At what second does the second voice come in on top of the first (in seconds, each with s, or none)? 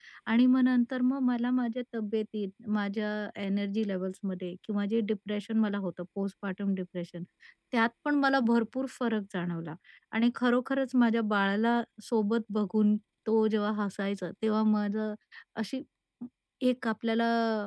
none